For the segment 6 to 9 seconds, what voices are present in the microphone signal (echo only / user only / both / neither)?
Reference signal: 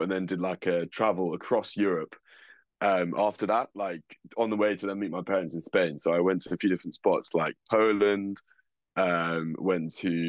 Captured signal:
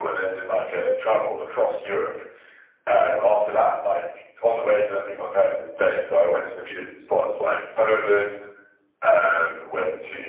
echo only